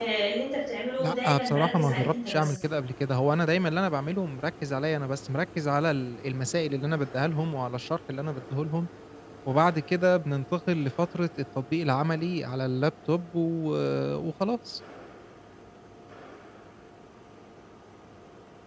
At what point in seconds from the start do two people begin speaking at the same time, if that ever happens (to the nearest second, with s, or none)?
1 s